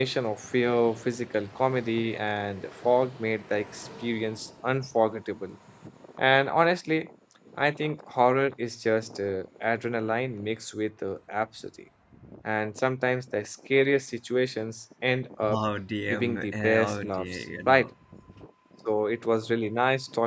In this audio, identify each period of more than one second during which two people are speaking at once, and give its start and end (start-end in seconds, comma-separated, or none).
16.1-17.9